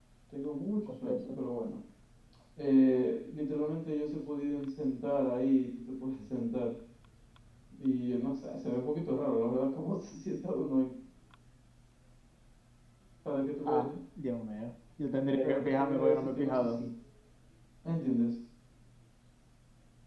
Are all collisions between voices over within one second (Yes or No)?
No